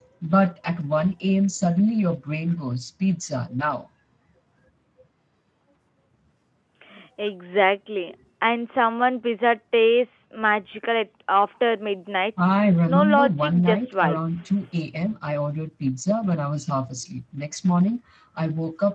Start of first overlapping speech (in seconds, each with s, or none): 12.9 s